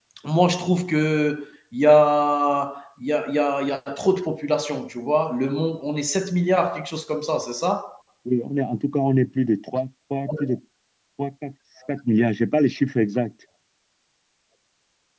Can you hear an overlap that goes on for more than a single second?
No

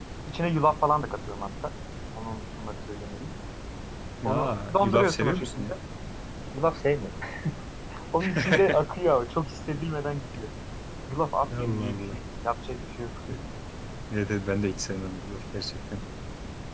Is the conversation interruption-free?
No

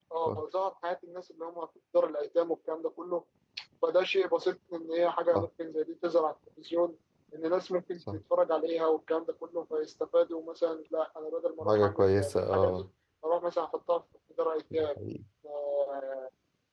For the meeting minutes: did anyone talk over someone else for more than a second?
Yes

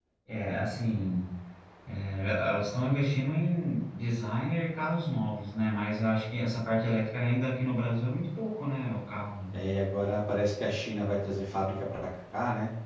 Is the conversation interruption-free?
Yes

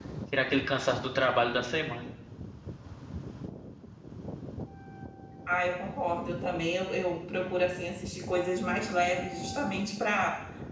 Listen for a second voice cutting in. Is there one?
No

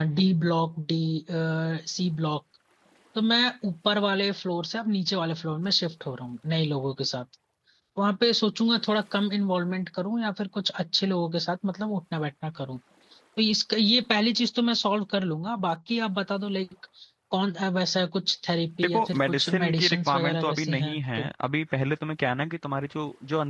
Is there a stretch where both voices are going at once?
Yes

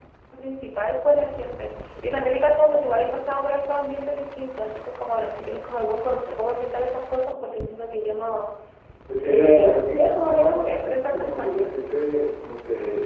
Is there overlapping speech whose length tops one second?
Yes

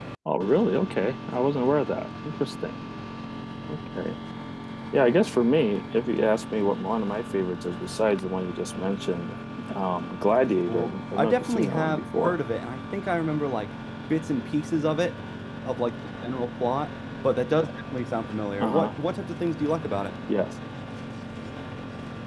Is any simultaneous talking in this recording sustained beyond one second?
Yes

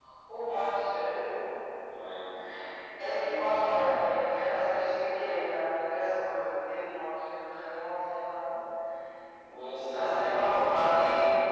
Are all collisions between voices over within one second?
No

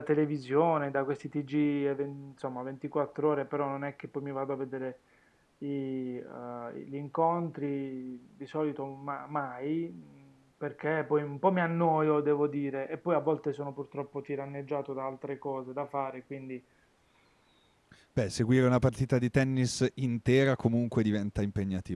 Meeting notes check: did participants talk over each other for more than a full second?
No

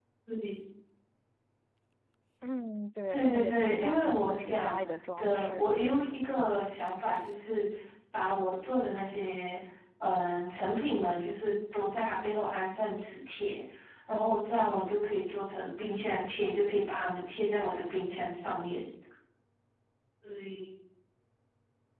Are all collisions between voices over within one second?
No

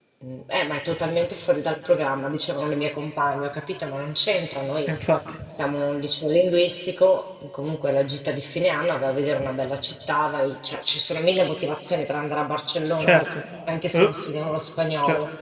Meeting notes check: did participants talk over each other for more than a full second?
No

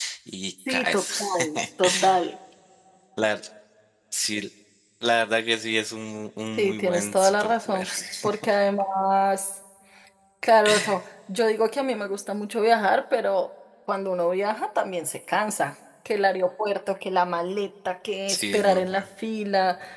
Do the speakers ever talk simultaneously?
Yes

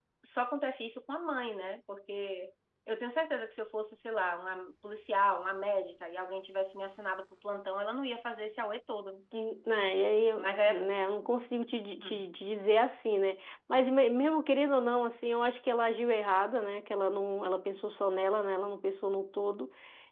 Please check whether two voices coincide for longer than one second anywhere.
No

